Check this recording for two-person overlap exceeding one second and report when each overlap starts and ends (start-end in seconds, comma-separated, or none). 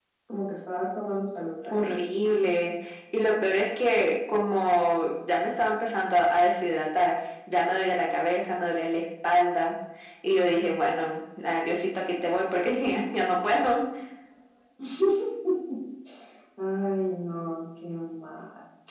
none